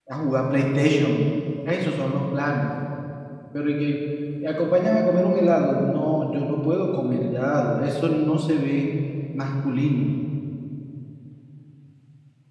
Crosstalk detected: No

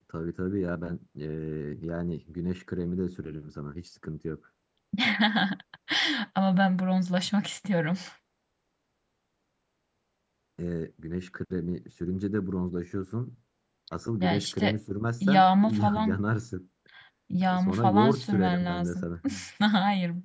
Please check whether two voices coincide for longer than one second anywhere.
Yes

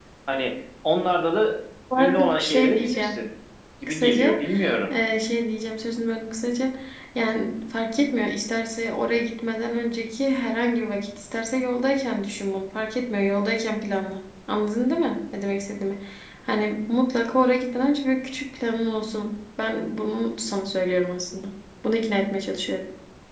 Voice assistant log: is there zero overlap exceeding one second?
No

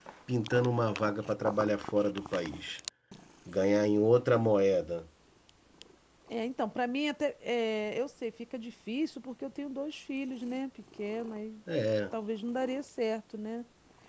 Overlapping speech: No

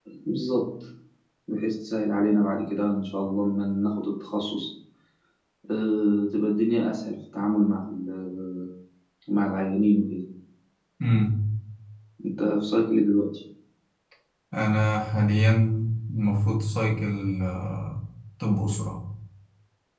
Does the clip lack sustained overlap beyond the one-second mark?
Yes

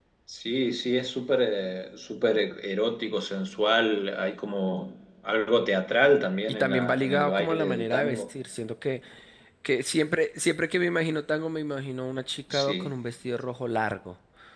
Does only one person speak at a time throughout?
No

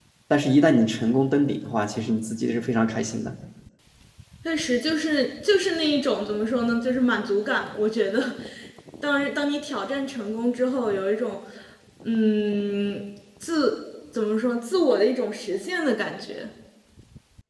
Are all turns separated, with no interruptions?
Yes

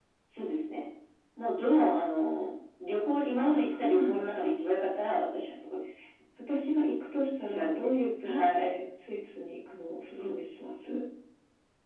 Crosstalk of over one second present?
Yes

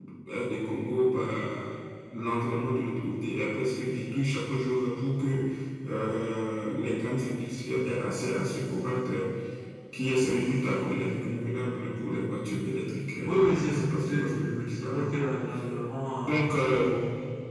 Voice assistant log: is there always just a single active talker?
No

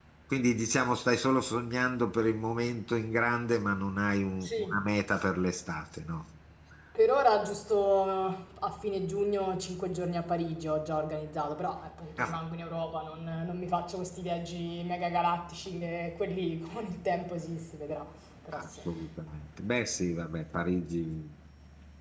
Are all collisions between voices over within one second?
Yes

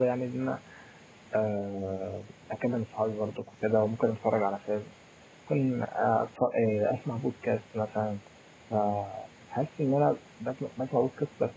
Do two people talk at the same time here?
No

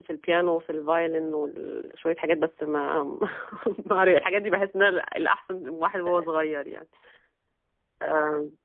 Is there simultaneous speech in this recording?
No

